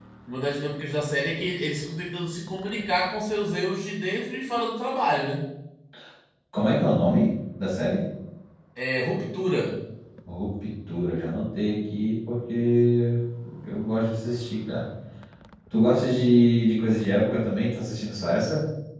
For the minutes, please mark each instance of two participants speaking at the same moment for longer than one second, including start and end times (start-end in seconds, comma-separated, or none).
none